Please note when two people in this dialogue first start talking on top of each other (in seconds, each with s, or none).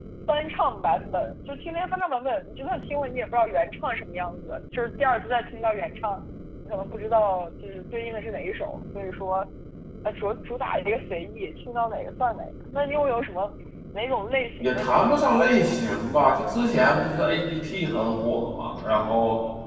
14.6 s